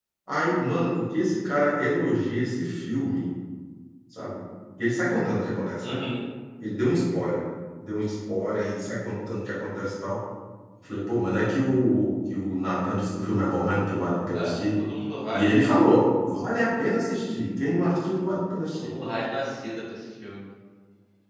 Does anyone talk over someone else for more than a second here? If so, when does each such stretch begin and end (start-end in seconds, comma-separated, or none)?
none